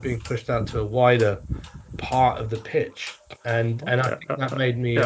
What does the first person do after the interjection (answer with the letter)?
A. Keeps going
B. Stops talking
B